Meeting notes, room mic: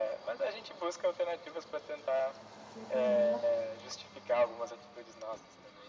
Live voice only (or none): que é a coisa melhor